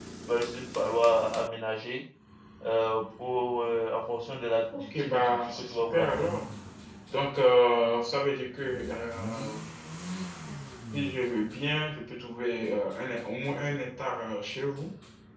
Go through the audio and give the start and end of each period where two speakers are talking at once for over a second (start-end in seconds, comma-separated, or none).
4.7-6.3